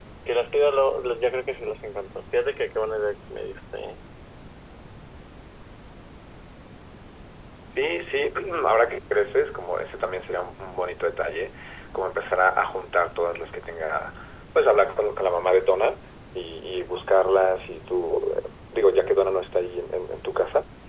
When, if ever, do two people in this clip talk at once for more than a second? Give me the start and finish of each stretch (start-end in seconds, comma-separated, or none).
none